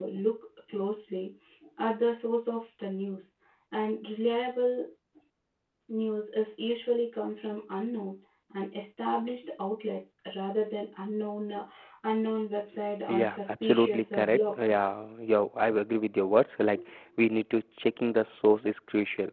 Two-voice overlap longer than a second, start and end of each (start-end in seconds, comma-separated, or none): 13.1-14.8